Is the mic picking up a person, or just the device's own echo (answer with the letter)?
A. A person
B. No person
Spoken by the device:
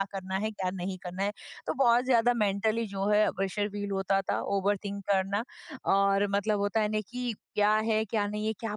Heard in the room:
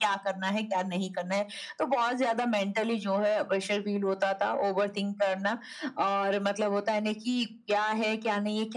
B